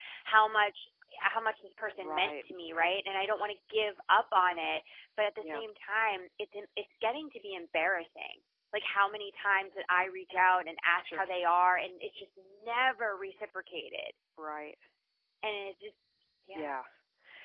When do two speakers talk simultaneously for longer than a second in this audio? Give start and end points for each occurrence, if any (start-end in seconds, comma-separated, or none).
none